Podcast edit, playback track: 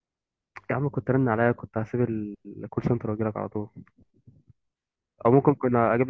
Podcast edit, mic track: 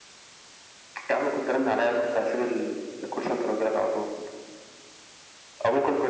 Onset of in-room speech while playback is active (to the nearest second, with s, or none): none